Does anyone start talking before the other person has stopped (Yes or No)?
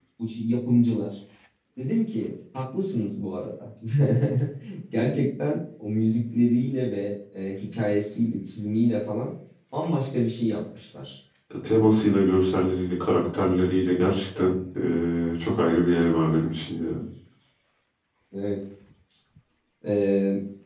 No